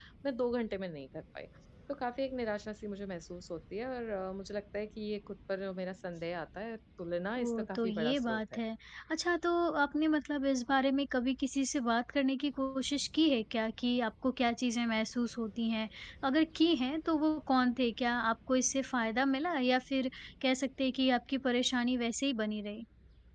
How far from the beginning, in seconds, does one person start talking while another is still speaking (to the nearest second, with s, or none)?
7 s